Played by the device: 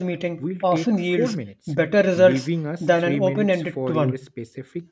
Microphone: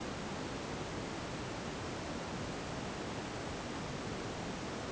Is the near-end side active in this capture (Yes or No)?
No